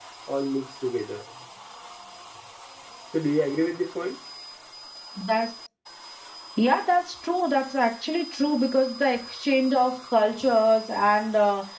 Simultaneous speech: No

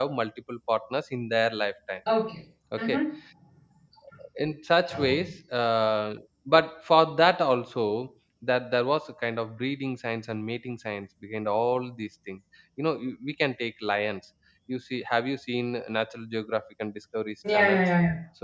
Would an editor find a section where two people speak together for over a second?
No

